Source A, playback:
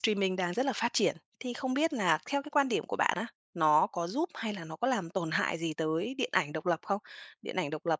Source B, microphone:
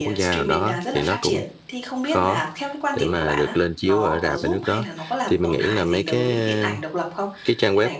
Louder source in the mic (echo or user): user